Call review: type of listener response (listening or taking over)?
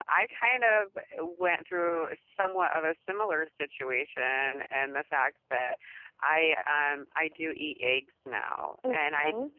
listening